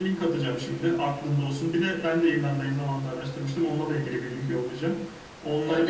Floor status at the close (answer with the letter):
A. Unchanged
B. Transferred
B